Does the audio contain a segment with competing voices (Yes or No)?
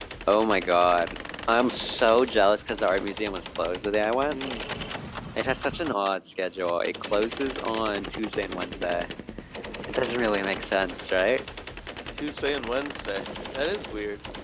No